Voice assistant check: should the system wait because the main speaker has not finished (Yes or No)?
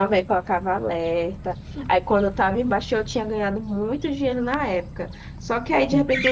Yes